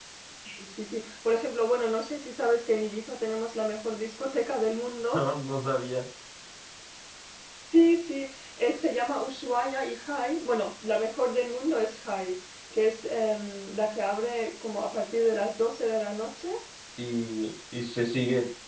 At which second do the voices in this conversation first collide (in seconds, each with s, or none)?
none